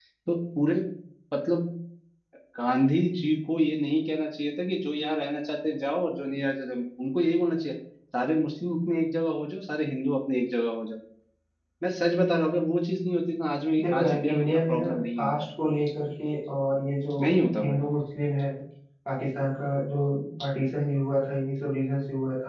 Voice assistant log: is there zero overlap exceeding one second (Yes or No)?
No